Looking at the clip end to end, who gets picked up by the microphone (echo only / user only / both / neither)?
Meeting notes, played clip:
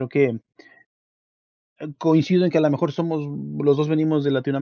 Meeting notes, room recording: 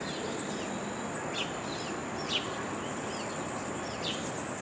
neither